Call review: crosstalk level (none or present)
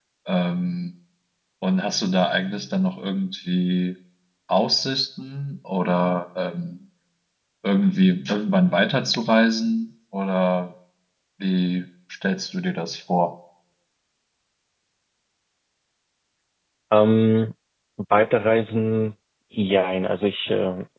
none